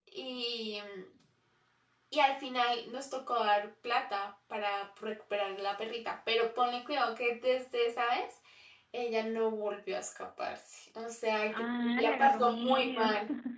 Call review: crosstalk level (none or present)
present